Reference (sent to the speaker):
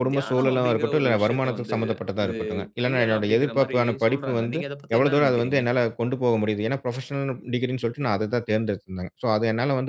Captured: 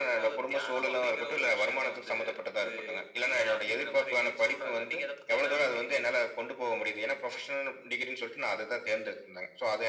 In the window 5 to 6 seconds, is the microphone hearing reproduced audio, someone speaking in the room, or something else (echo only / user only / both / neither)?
echo only